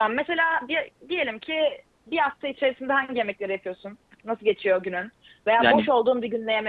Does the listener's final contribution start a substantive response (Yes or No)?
No